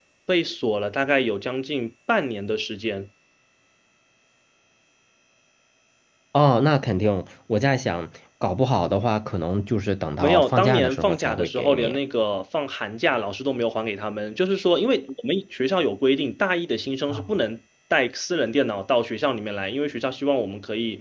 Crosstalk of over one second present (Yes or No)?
Yes